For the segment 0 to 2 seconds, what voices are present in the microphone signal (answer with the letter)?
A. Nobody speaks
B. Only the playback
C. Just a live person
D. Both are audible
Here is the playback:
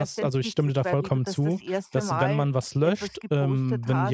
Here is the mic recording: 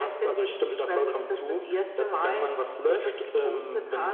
B